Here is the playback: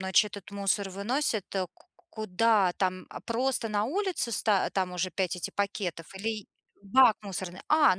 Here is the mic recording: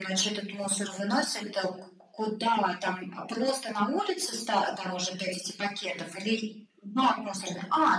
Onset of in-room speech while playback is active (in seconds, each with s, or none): none